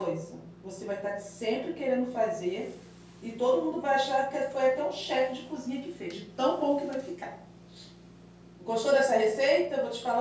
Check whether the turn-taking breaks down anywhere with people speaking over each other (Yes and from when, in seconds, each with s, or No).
No